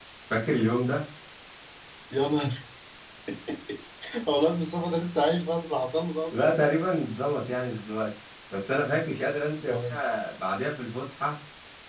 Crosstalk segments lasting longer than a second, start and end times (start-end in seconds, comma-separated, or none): none